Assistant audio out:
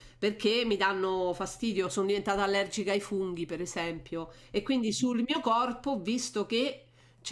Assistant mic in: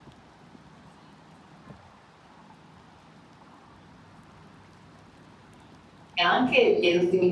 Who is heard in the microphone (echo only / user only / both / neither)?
user only